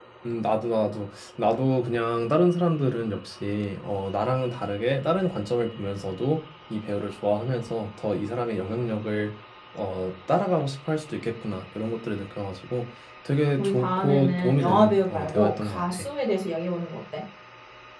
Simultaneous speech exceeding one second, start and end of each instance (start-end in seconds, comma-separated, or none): 13.6-16.0